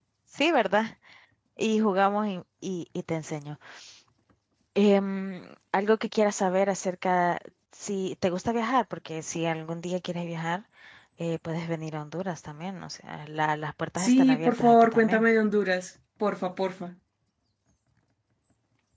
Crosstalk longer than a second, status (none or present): present